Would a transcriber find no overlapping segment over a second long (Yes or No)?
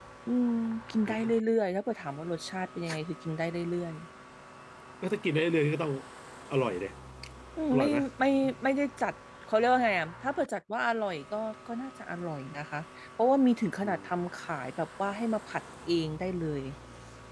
Yes